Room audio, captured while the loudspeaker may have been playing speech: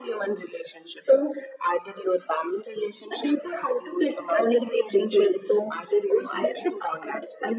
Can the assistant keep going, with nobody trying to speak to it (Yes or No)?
Yes